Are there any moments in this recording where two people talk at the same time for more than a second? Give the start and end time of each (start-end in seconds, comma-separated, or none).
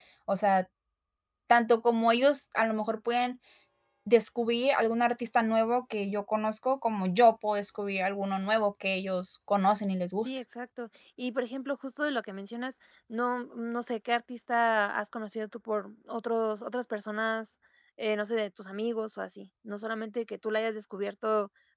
none